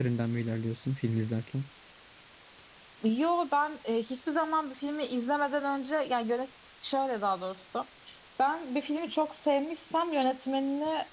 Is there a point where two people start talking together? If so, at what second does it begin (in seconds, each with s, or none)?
none